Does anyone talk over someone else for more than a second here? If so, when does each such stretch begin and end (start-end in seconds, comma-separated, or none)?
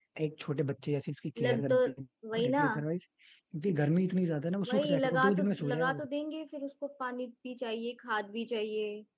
4.7-6.0